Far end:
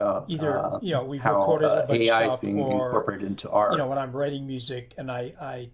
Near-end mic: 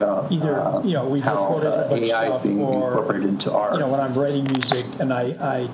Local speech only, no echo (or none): none